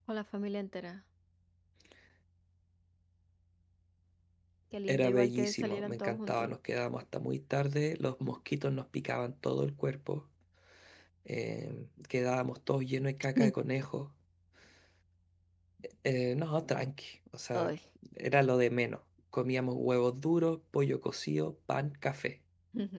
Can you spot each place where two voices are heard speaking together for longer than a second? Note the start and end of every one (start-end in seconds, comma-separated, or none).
4.9-6.5